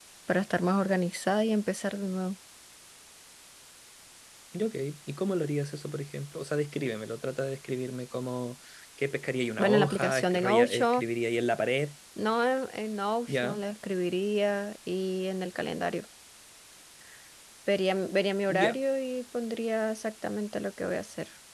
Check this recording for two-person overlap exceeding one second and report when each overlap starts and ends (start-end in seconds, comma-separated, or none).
9.6-11.0